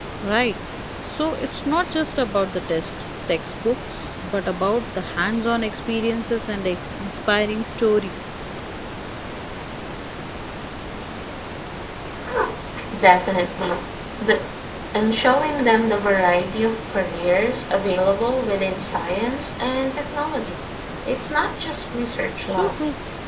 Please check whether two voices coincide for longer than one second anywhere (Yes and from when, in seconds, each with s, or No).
No